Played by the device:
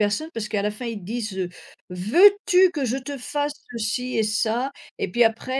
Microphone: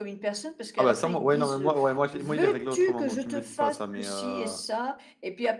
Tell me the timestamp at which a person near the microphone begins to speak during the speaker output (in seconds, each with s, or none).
0.8 s